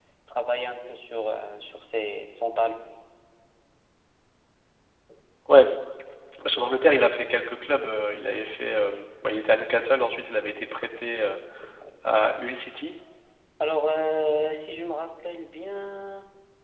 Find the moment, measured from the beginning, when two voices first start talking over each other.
none

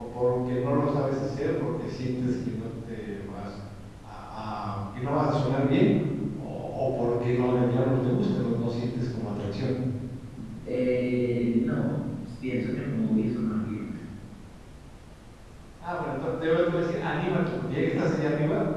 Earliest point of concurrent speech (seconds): none

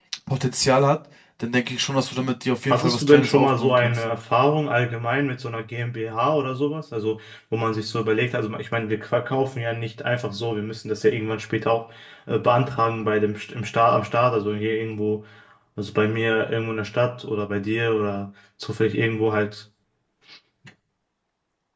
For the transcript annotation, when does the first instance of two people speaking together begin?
2.7 s

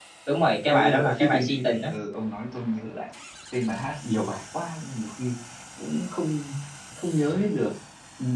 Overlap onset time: 0.7 s

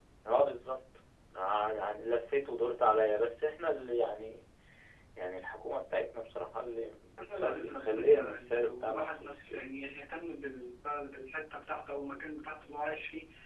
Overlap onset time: 7.2 s

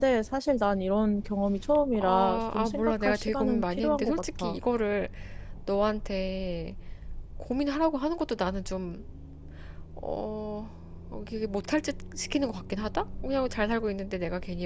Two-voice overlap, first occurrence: 1.9 s

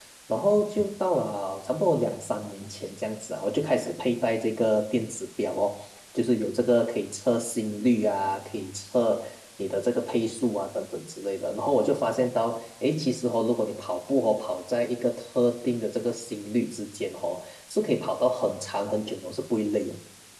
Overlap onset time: none

